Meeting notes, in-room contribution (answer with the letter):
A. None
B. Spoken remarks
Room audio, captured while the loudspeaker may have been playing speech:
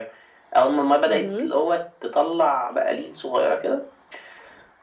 B